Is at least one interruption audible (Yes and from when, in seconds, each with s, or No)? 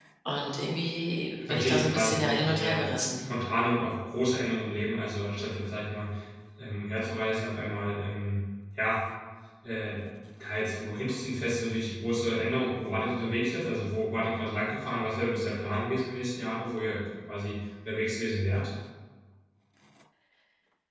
Yes, from 1.5 s